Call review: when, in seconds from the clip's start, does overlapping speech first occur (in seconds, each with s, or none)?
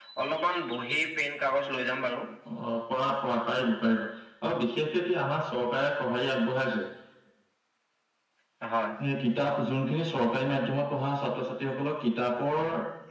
none